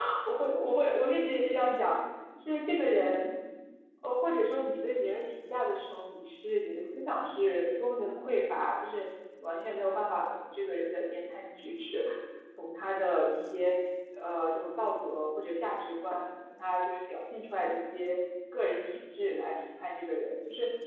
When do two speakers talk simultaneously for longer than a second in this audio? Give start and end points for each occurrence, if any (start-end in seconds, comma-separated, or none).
none